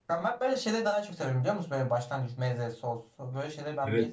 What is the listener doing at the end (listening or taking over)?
taking over